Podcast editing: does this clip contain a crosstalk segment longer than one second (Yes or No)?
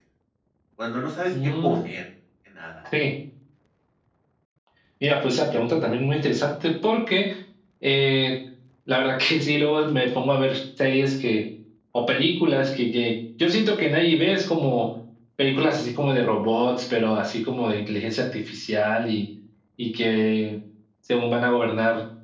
No